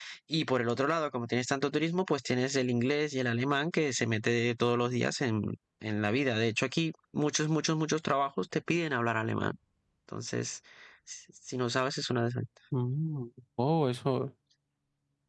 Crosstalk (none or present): none